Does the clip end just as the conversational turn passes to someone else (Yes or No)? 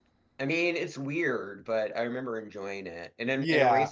No